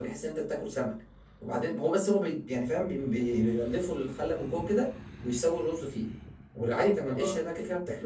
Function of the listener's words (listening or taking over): listening